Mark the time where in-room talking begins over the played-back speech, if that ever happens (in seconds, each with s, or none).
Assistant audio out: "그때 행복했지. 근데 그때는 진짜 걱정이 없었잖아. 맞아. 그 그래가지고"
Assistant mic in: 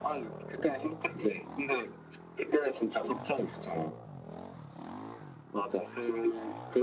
none